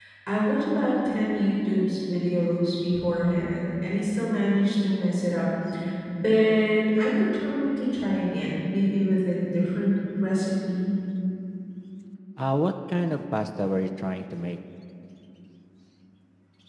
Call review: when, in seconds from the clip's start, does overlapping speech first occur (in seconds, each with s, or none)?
none